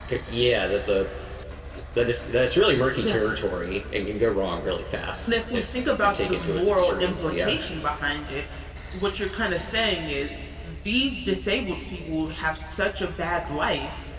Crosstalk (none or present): present